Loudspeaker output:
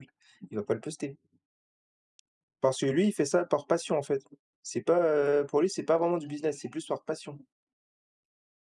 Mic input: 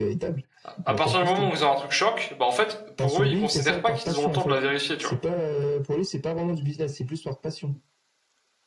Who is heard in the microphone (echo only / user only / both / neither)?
both